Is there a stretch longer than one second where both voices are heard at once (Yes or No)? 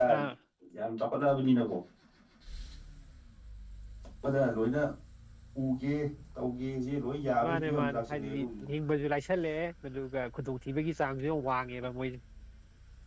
Yes